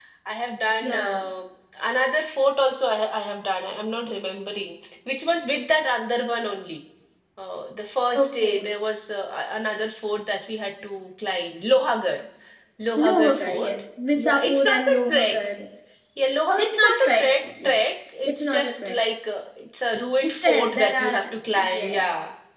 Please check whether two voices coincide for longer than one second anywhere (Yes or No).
Yes